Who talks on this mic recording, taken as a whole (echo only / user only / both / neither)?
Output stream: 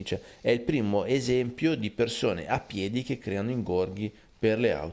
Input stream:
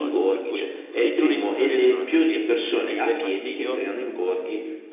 both